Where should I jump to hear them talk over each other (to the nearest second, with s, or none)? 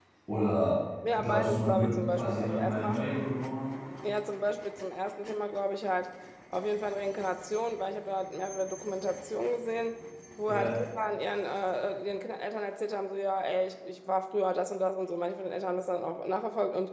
1 s